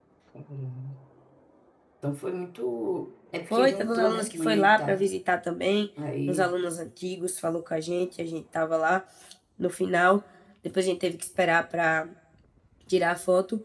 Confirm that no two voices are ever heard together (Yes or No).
No